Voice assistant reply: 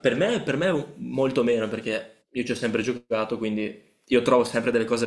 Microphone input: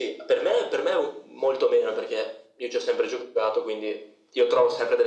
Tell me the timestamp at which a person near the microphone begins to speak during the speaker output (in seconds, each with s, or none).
none